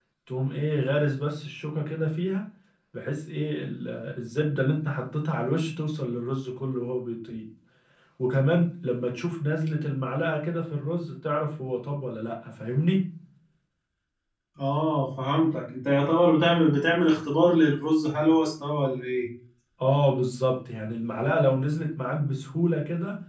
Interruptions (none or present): none